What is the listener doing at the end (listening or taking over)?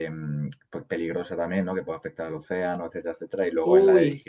listening